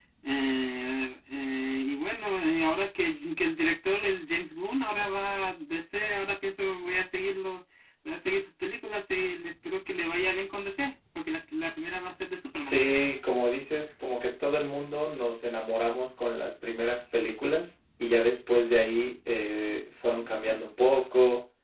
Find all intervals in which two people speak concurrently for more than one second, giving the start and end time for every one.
none

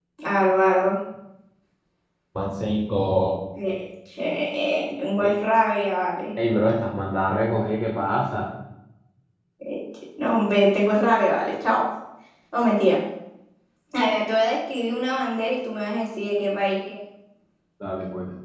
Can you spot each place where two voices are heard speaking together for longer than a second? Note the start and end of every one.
none

